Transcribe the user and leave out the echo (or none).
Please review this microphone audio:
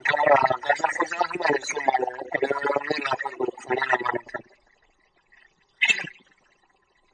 none